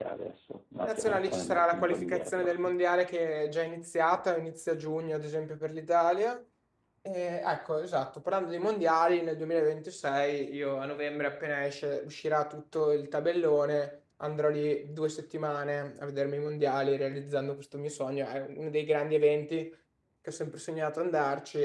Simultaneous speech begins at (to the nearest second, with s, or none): 1 s